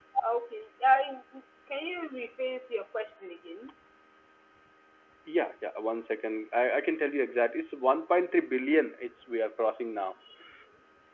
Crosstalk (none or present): none